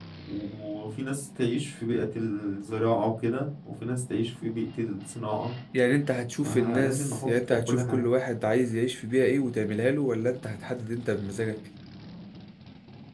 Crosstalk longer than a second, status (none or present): present